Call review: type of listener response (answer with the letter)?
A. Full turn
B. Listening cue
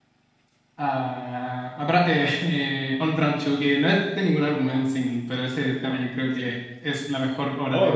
A